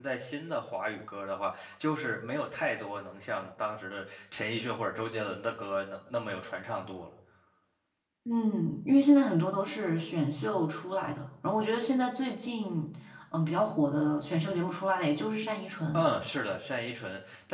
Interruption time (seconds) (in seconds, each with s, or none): none